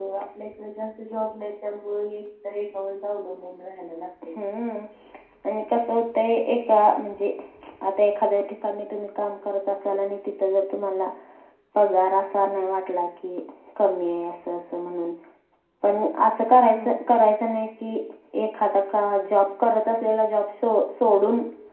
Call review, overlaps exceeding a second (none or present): none